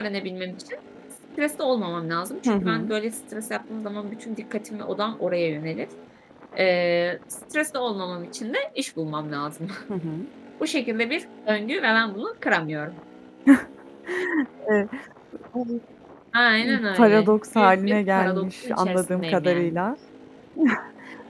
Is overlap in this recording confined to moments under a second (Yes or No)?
No